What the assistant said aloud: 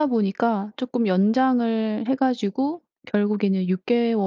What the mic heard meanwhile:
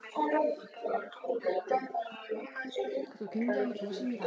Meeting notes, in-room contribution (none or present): present